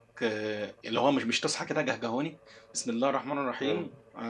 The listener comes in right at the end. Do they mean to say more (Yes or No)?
No